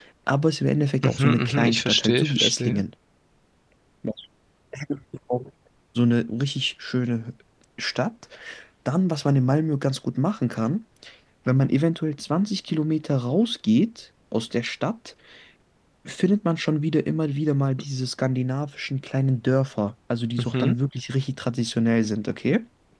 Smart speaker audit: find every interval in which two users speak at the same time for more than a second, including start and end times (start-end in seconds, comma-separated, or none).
1.0-2.8